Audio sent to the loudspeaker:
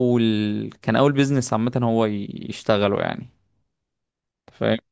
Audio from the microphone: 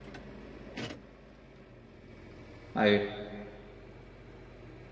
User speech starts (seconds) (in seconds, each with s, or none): 2.7 s